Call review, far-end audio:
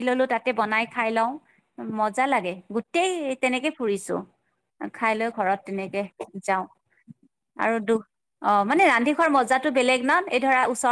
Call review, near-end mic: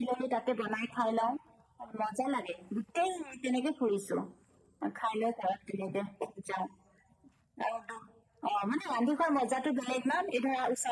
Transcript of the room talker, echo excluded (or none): none